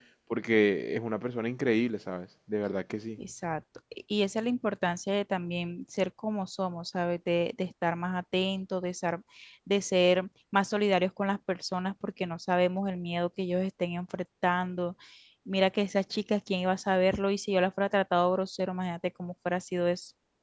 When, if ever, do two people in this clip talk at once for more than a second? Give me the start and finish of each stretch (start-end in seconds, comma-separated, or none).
none